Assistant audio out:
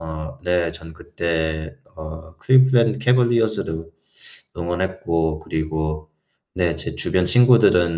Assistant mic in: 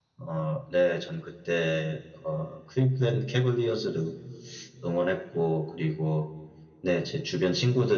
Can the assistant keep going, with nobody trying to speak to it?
Yes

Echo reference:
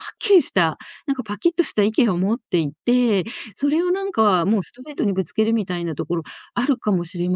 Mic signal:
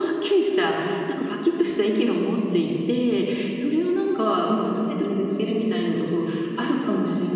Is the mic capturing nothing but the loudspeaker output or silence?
Yes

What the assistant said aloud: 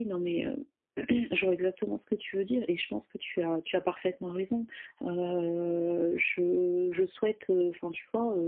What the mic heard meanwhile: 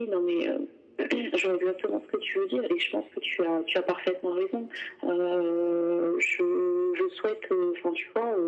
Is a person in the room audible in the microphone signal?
No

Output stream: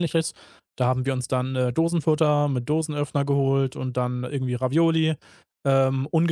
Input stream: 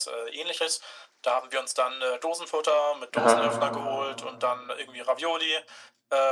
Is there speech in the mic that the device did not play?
Yes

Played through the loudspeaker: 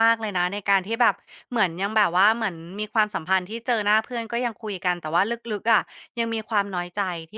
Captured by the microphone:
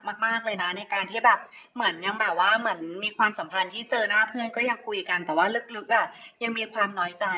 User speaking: No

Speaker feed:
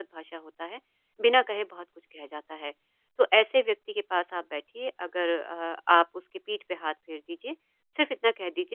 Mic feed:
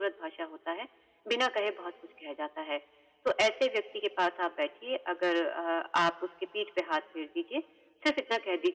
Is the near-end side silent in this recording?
Yes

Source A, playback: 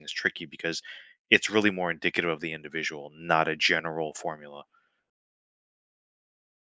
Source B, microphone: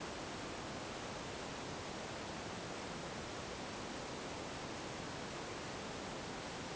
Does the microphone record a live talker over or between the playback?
No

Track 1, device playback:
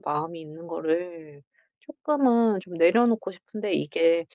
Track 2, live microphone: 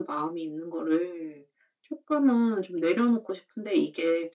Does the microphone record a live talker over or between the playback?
No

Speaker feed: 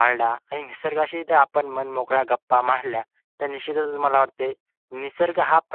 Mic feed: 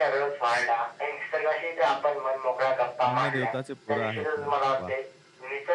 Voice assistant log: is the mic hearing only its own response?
No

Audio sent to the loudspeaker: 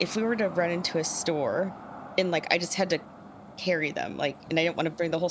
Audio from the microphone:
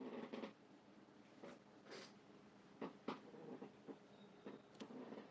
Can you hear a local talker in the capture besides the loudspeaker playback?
No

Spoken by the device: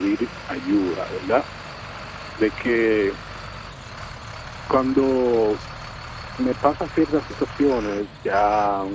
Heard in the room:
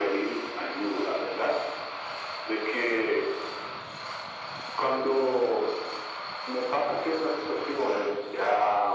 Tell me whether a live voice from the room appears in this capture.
No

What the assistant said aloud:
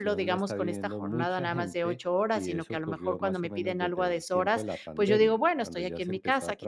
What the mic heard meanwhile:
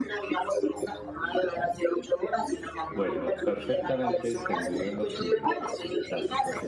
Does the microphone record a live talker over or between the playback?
Yes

